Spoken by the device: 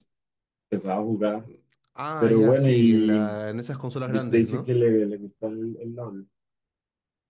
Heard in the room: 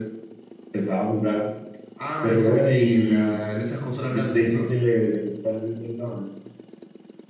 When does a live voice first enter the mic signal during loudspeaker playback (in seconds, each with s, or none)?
none